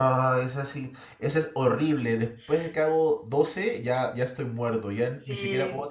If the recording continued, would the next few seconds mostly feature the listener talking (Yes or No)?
Yes